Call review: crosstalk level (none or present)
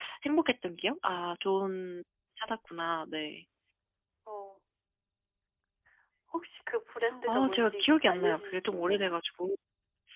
present